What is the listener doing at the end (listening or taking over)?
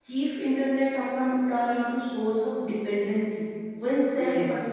listening